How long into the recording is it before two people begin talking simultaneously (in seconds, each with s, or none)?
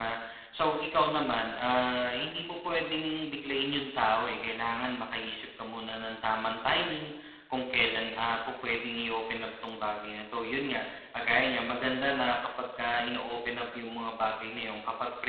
none